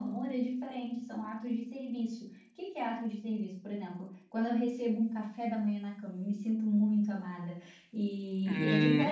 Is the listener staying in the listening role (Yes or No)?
No